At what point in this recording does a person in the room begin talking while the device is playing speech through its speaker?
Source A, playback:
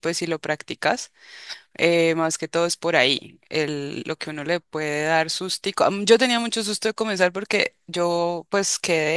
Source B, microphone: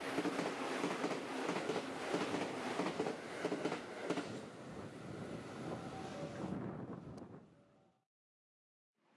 none

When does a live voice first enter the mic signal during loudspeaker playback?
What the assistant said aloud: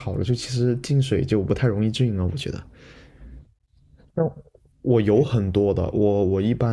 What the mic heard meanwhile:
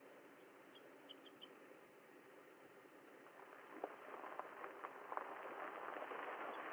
none

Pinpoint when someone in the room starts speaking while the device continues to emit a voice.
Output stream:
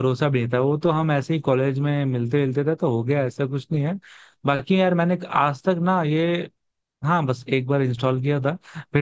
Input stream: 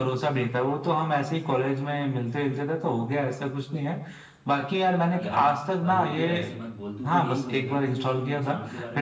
5.2 s

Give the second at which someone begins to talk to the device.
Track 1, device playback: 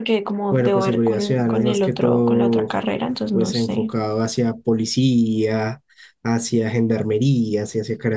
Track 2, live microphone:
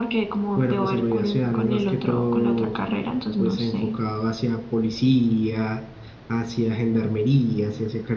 none

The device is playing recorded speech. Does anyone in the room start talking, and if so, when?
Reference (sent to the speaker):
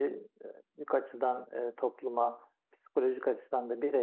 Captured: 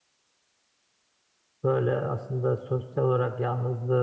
1.6 s

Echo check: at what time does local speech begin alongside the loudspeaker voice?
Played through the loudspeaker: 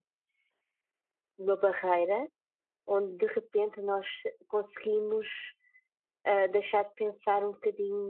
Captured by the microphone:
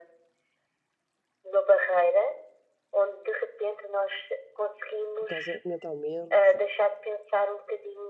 5.2 s

